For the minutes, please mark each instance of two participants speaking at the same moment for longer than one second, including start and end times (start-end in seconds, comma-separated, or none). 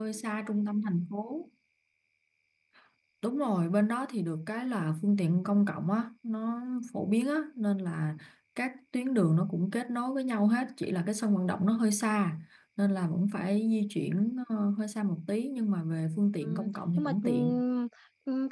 16.4-17.6